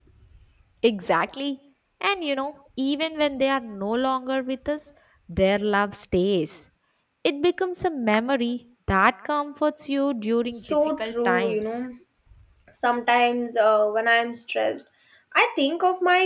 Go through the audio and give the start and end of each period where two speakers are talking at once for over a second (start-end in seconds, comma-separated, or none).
10.5-11.8